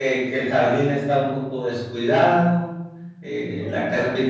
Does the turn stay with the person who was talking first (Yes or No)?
Yes